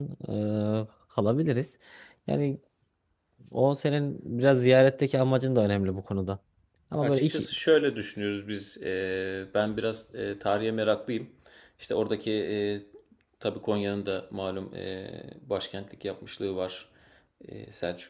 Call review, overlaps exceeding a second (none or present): none